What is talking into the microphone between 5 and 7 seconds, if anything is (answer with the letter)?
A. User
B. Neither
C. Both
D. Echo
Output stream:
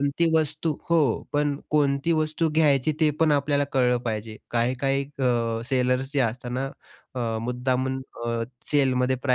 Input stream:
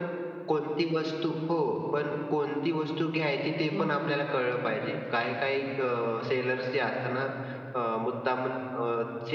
D